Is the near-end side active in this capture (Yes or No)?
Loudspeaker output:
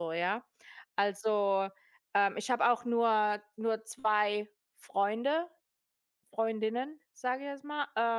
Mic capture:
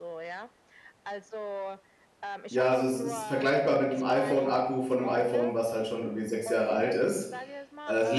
Yes